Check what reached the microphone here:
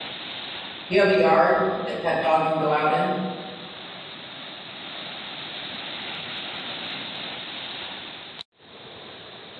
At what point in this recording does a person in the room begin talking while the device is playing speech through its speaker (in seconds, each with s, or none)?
0.9 s